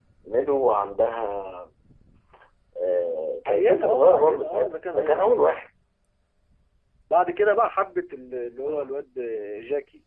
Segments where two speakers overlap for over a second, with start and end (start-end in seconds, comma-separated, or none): 3.5-5.6